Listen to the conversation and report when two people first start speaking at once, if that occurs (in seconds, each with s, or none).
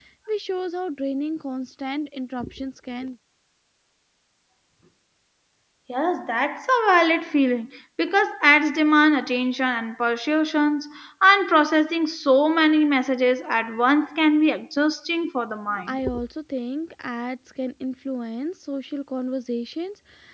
none